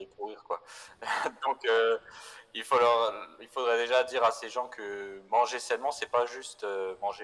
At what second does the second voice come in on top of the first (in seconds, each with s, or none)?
none